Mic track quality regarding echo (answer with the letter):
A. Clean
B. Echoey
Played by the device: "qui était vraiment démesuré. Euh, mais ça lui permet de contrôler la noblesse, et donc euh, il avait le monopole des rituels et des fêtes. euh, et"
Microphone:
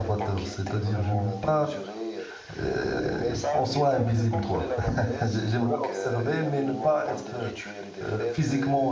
B